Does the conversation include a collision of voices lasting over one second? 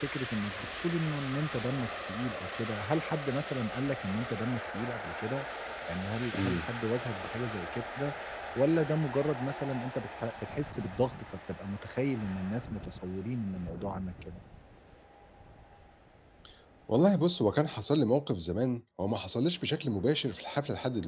No

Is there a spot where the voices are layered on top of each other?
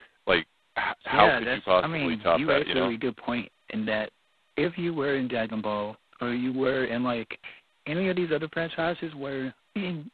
Yes, from 1.1 s

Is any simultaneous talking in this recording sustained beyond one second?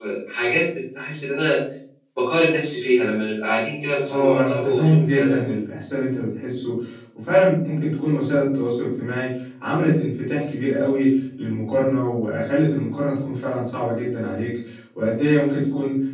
Yes, from 4.1 s

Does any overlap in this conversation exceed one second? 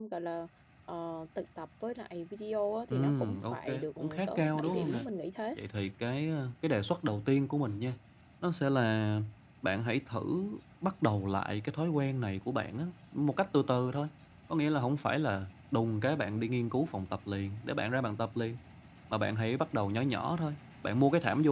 Yes, from 2.9 s

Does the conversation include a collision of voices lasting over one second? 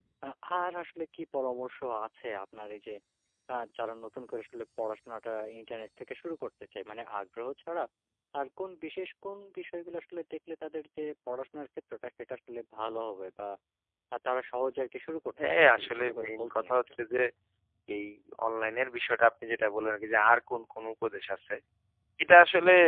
Yes, from 15.4 s

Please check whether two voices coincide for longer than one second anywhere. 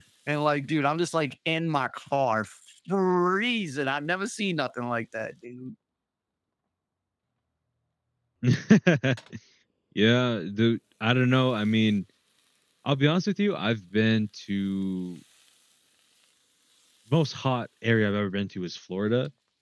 No

